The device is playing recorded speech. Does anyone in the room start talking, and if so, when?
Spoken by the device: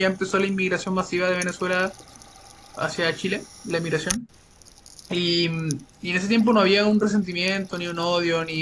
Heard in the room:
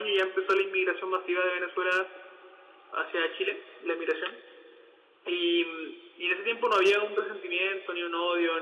none

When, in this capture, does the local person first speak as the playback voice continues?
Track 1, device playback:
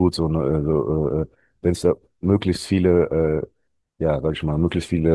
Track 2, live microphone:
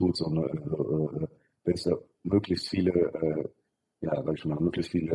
none

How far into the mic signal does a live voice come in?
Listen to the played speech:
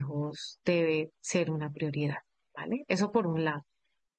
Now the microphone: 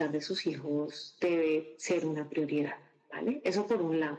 none

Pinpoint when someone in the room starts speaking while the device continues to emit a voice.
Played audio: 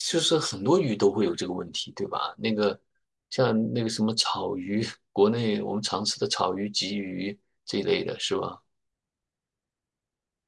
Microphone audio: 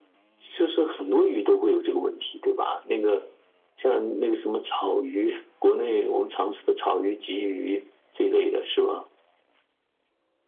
none

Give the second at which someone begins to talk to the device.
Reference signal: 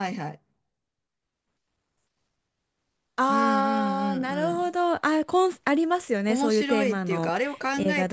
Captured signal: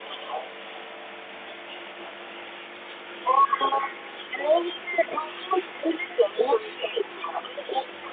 none

